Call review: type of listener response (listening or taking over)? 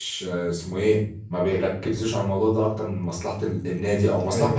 listening